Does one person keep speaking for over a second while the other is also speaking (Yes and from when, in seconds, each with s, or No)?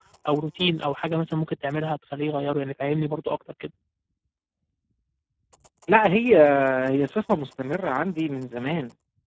No